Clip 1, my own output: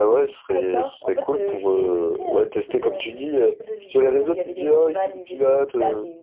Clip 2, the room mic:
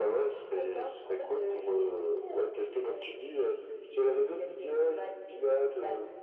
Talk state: echo only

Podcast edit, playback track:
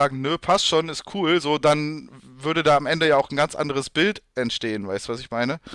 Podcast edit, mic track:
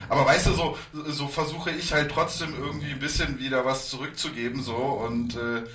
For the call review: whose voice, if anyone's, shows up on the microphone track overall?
user only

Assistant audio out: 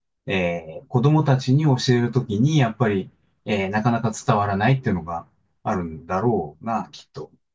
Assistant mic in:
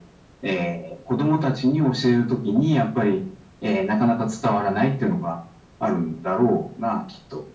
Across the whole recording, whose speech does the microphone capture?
echo only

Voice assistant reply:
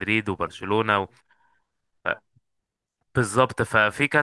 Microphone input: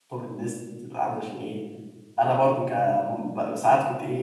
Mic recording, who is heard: user only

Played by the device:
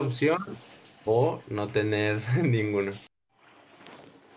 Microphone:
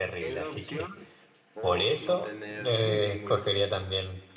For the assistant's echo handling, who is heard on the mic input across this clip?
both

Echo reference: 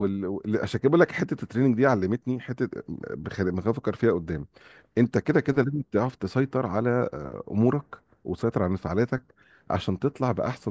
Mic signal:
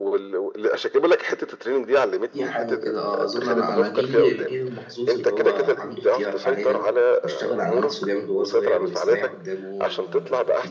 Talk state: both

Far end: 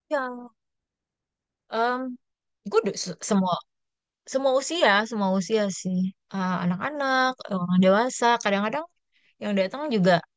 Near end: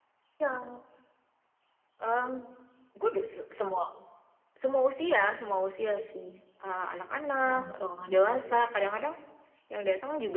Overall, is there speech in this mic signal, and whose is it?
both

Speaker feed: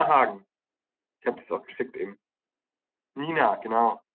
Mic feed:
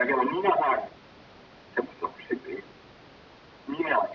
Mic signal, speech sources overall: echo only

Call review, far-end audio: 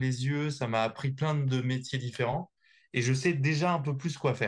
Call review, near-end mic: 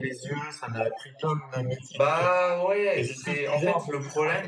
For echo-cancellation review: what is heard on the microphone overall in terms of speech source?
both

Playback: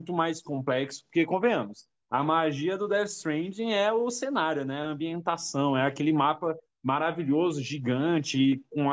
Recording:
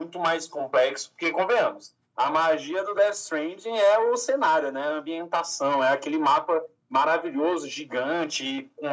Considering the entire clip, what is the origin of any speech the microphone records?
echo only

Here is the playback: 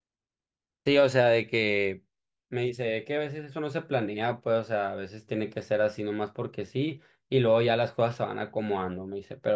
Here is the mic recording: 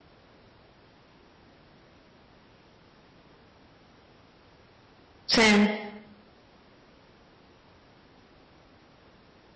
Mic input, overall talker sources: user only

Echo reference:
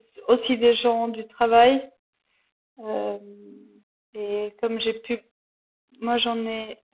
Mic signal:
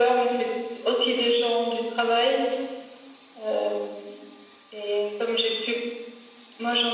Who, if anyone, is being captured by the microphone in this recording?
echo only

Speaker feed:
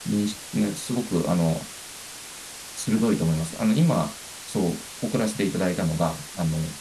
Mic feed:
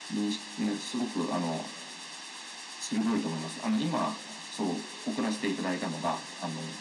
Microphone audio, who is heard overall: echo only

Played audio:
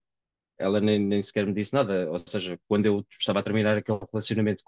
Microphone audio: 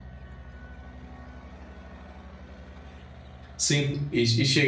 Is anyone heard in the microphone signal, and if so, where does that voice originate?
user only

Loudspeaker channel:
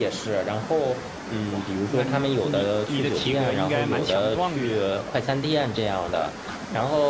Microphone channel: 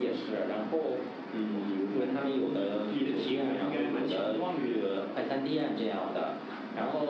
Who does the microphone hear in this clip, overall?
echo only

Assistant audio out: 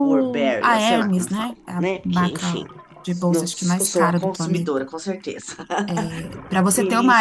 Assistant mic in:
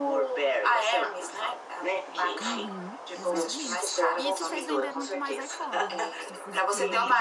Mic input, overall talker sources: both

